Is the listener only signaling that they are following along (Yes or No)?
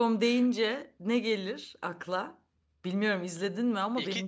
No